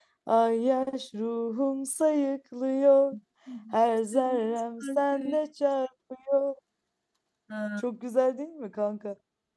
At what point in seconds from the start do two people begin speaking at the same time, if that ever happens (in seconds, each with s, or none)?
4.1 s